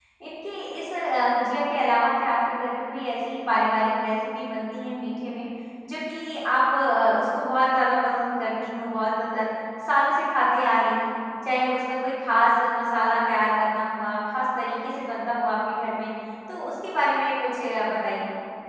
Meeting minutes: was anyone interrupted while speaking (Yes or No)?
No